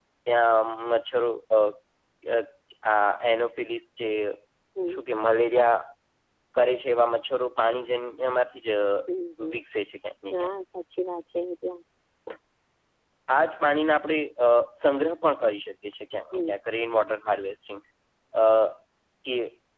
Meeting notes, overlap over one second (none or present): none